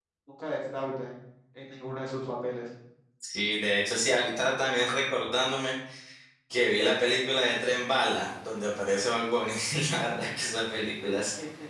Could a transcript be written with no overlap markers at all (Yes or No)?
Yes